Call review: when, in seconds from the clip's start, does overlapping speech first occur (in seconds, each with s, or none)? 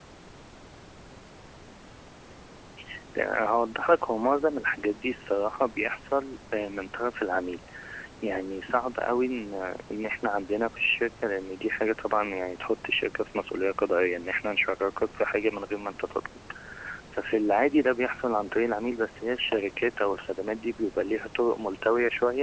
none